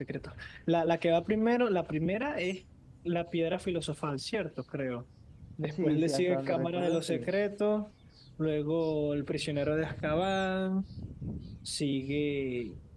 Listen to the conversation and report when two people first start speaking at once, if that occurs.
5.7 s

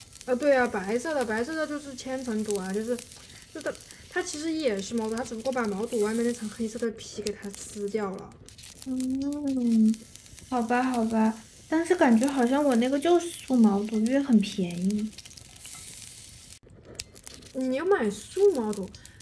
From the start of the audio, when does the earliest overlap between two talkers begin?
none

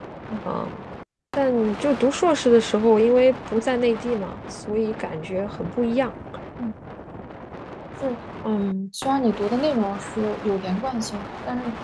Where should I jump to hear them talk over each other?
none

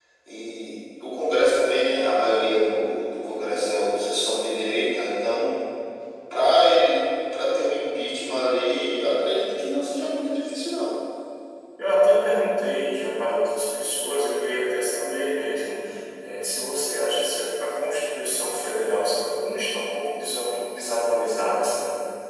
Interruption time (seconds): none

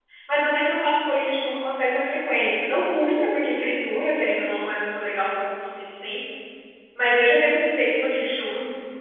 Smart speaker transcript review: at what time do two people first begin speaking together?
none

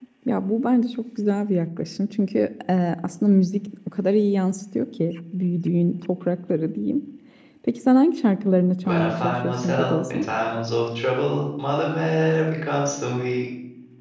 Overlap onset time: 8.8 s

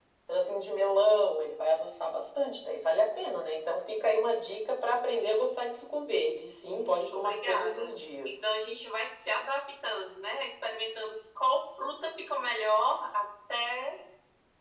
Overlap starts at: 6.6 s

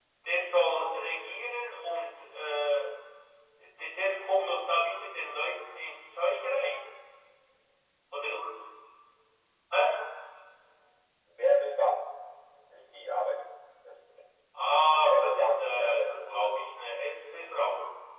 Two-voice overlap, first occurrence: 15.1 s

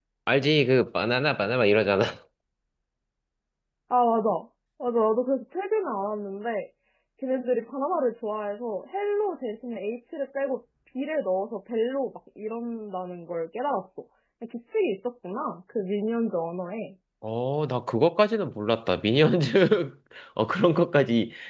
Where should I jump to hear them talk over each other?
none

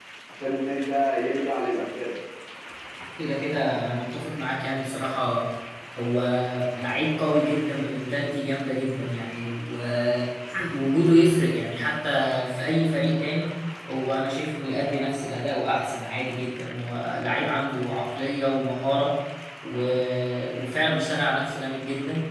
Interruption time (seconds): none

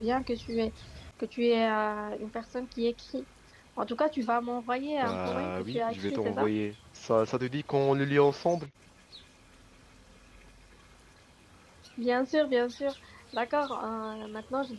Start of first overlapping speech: 5.0 s

